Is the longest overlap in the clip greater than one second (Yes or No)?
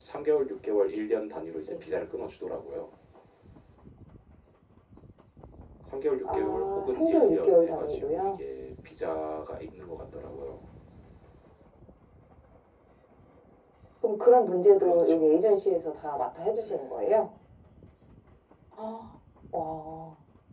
Yes